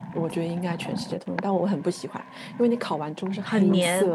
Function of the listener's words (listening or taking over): listening